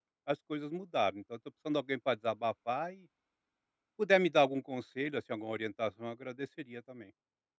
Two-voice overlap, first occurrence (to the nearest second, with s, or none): none